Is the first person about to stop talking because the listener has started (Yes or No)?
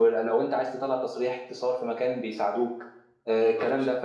No